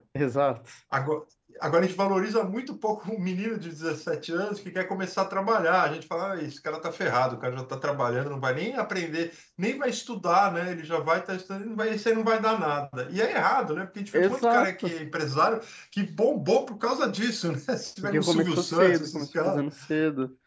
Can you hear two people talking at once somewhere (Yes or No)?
Yes